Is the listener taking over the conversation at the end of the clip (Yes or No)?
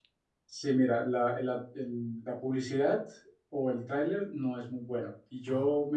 No